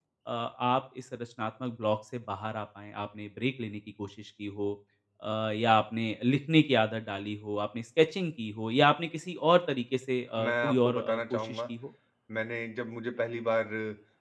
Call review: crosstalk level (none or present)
present